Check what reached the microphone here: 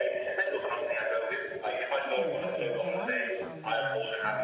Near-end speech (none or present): present